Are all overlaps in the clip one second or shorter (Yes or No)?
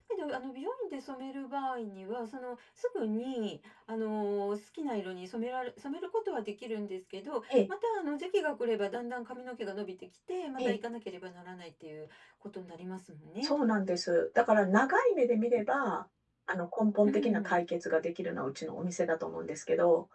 Yes